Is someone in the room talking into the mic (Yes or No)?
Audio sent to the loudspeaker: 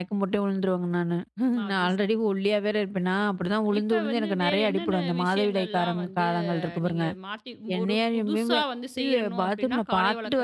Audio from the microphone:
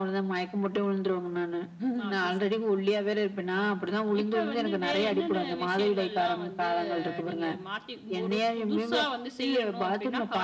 No